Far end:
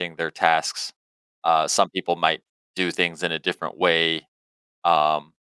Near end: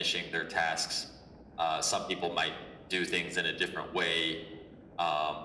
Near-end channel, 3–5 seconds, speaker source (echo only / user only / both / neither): echo only